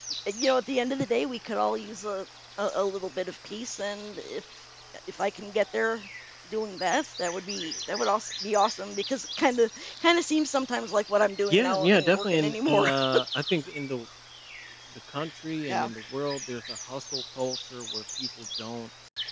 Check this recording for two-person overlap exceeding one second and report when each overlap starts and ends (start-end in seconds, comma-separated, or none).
11.5-12.9